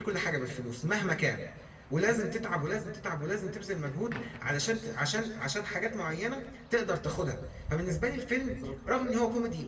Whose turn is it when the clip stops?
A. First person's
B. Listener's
A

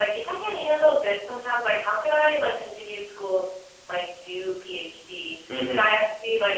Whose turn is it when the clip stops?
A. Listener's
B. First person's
B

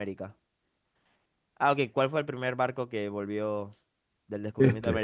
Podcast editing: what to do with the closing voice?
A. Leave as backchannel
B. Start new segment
A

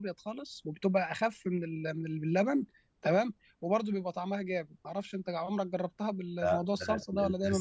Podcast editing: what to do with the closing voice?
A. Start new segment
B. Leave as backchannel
A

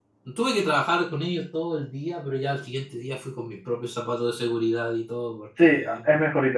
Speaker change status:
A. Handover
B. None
A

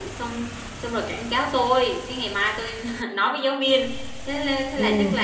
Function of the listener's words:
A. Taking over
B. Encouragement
B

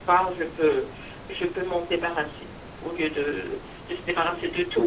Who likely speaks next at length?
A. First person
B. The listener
B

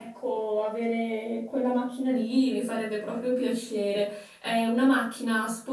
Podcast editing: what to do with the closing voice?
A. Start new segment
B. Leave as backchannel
B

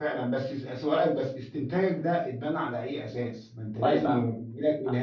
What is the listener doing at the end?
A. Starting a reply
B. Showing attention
B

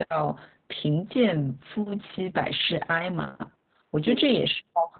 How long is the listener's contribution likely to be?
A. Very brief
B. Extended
A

